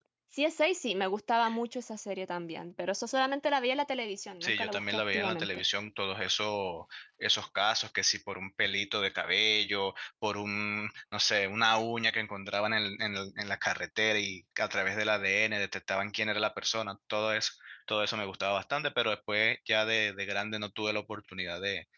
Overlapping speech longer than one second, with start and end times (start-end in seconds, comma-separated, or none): 4.4-5.6